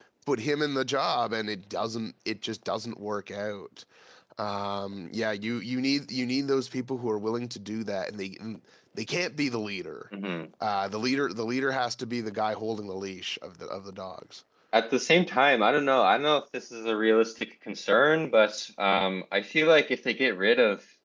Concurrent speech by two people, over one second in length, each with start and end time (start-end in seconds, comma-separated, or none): none